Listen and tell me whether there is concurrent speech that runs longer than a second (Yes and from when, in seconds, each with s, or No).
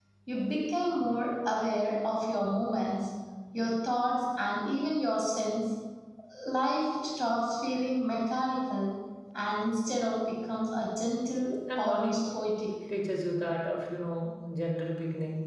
No